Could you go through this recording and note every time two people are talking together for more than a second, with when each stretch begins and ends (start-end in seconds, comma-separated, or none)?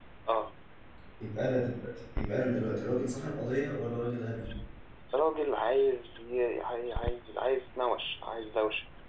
none